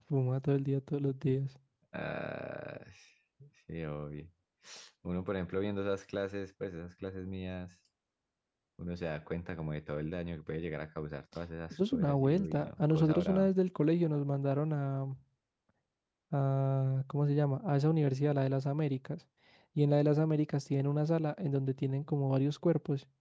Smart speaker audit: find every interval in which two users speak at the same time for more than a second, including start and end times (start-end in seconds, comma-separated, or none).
11.7-13.5